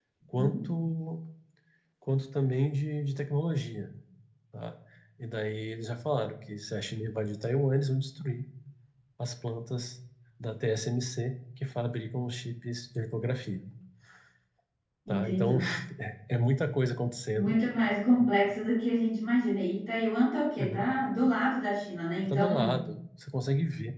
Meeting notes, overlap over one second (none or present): none